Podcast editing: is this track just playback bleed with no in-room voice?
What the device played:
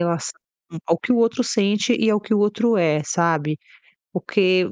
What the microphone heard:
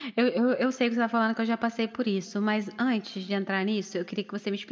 No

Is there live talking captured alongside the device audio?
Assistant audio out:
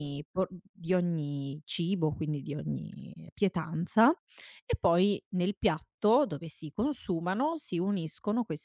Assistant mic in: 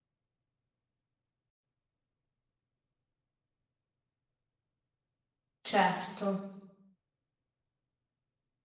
Yes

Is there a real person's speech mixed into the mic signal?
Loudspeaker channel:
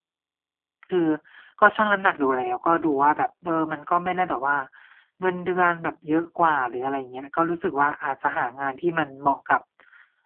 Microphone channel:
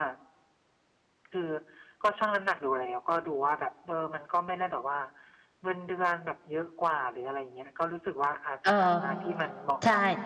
Yes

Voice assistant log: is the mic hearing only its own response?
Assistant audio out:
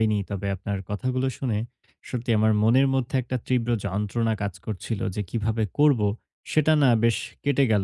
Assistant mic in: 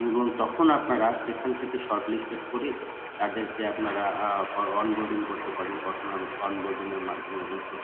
No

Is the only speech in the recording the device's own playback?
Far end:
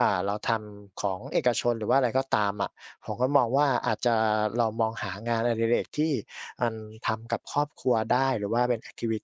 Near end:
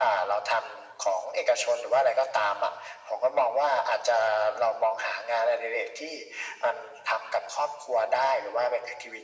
Yes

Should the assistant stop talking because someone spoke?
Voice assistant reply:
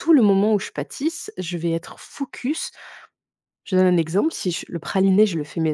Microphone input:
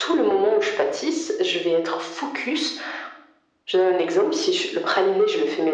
No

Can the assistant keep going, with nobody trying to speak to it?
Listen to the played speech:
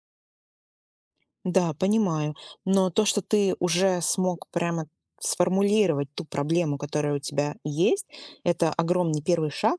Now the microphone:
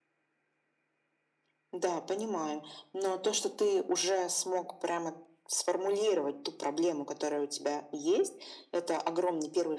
Yes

